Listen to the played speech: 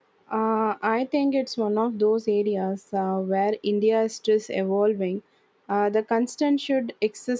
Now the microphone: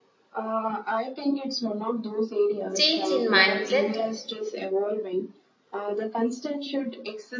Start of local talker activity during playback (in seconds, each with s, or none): 2.7 s